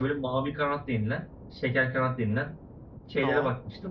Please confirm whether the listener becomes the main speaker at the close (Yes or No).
No